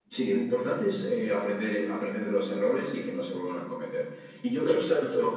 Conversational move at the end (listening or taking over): listening